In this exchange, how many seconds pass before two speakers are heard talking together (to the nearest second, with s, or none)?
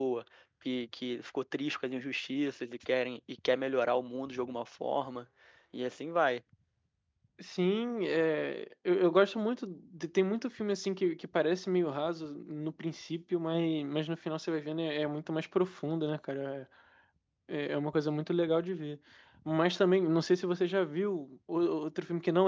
none